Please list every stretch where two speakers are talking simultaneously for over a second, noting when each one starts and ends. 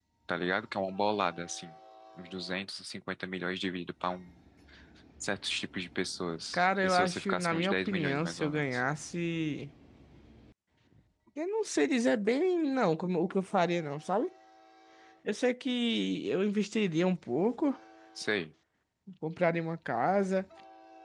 6.5-8.6

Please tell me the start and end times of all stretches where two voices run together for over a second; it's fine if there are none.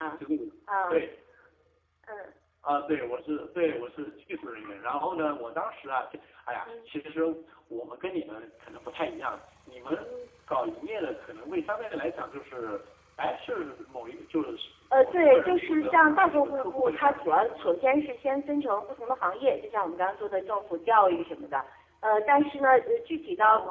14.9-17.7

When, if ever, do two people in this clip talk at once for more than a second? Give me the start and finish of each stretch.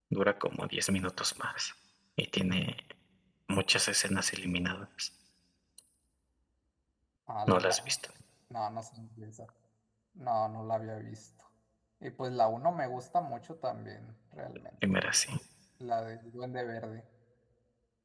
none

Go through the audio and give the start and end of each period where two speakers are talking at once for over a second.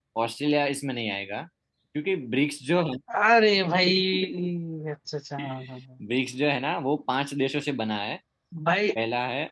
none

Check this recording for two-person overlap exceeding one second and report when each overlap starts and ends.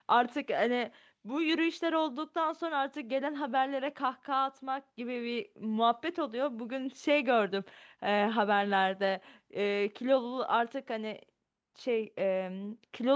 none

